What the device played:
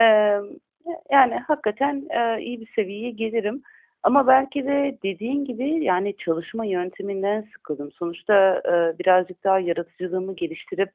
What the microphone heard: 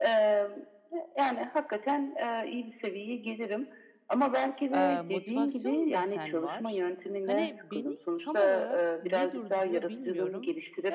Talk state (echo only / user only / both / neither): both